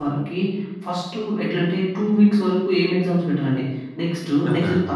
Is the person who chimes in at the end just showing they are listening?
Yes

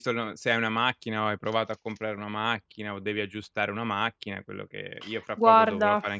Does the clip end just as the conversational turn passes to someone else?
No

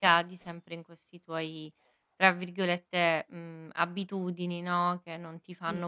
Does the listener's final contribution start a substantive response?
No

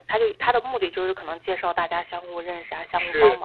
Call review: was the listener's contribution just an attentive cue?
No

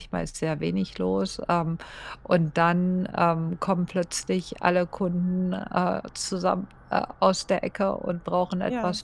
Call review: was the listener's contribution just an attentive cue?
Yes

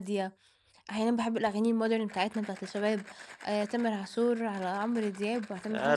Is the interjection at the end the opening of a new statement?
Yes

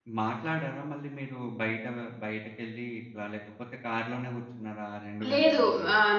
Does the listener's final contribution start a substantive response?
Yes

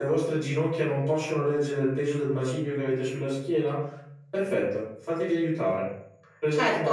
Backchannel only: No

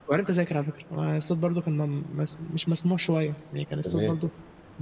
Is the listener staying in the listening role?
Yes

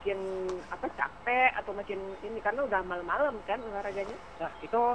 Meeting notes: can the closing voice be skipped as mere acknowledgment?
No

